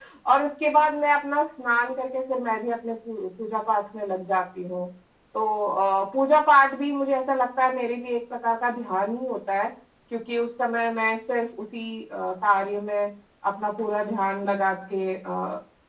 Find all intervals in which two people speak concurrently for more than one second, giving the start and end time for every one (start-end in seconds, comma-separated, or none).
none